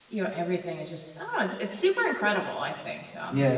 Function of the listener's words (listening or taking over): taking over